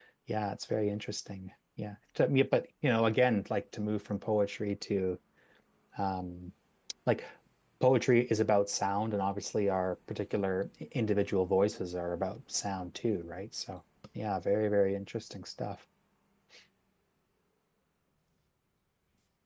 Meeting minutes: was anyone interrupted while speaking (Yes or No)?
No